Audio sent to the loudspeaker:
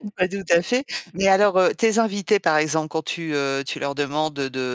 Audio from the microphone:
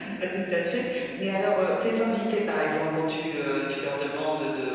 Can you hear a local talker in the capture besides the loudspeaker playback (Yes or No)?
No